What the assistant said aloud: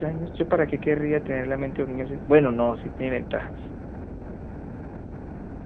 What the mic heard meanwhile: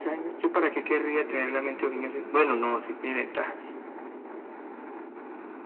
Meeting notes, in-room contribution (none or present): none